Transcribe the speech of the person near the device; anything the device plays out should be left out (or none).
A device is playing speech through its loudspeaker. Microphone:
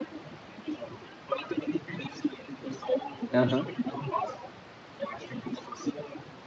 Aham.